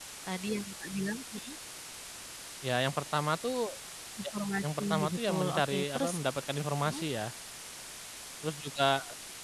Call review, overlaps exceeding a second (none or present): present